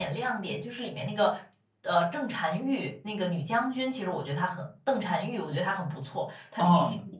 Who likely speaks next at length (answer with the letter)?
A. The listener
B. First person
A